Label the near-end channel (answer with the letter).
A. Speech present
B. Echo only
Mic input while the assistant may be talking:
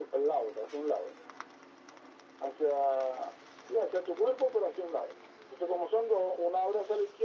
B